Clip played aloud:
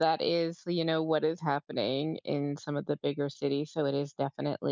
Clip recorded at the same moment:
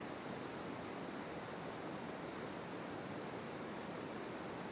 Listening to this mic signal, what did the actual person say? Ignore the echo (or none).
none